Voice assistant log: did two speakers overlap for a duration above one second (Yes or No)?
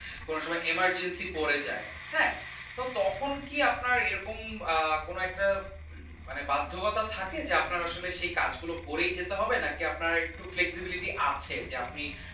No